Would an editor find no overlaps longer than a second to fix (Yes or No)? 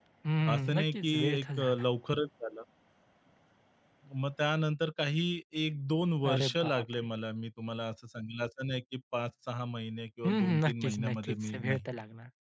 No